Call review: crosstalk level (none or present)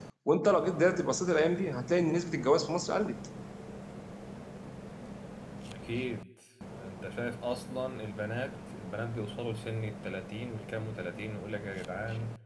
none